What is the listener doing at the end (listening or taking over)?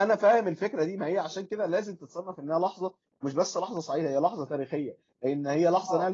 listening